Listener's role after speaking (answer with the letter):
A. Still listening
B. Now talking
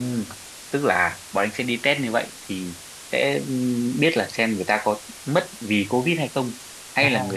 A